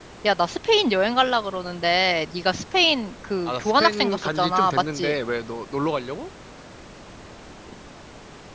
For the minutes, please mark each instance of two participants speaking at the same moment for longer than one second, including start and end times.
3.5-5.2

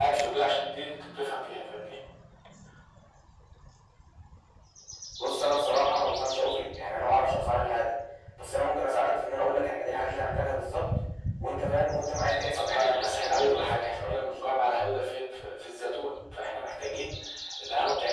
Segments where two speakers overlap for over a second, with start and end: 12.5-14.6

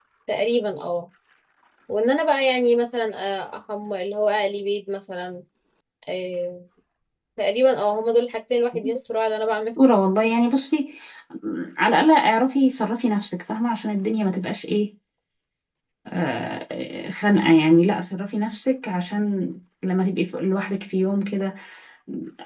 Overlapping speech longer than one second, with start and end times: none

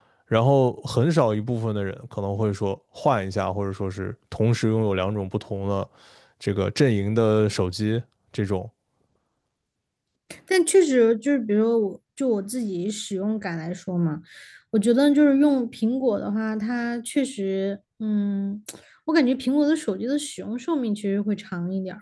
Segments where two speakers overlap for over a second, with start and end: none

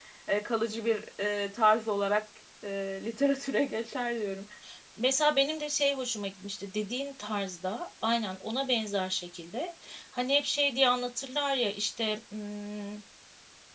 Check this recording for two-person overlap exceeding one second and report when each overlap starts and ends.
none

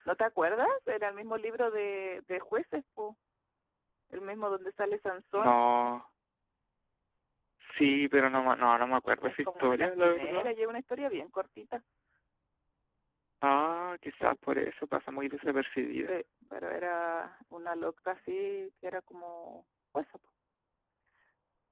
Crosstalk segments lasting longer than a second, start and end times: 9.3-10.5

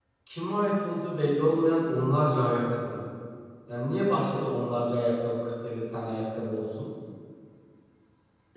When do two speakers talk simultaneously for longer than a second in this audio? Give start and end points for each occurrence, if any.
none

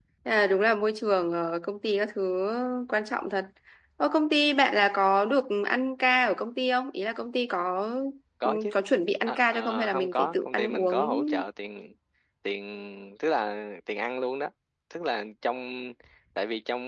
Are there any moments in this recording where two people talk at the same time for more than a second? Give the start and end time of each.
9.3-11.2

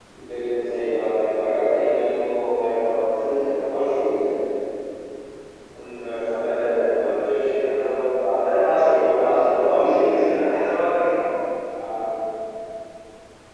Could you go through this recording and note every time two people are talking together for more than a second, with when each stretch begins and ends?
8.4-10.4

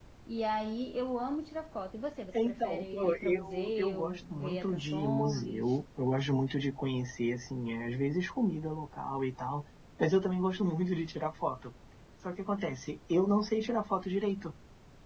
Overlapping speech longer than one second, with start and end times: 2.4-5.8

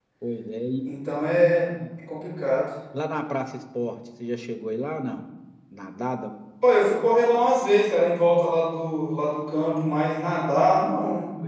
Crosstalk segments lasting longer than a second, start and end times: none

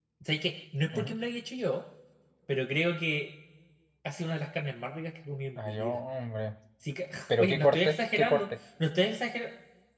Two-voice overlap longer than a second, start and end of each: 7.3-8.5

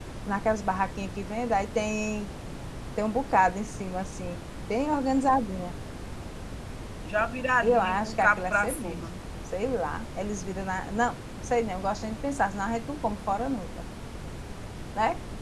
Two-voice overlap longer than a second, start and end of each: 7.6-9.1

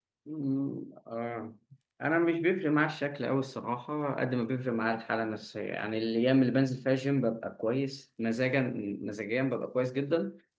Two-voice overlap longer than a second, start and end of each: none

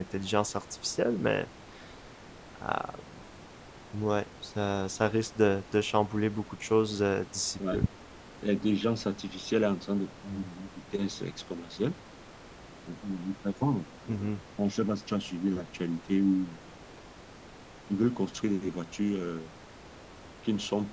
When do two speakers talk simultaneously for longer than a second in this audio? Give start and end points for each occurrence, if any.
none

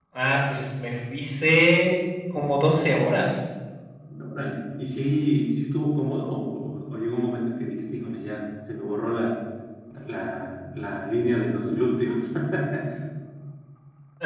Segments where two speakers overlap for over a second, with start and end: none

